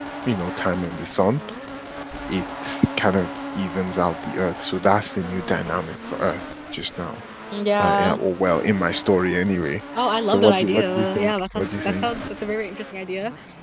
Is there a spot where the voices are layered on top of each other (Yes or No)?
Yes